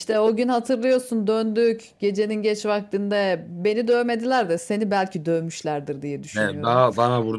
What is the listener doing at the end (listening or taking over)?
taking over